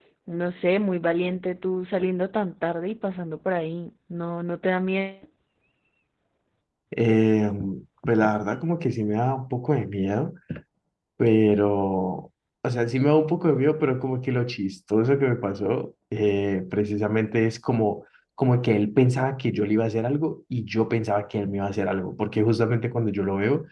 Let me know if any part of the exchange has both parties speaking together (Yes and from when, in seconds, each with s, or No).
No